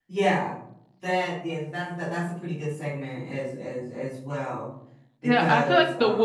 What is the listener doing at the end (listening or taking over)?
taking over